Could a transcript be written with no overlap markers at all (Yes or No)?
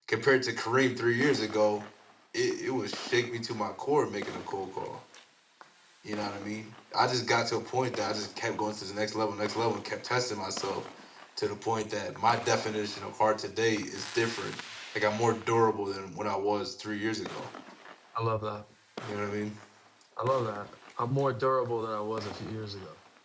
Yes